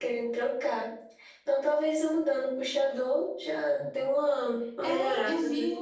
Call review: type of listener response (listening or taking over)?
taking over